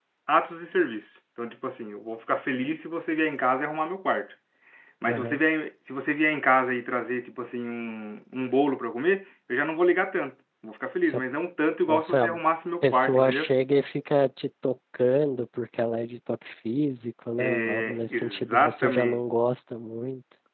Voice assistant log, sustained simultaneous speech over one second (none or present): present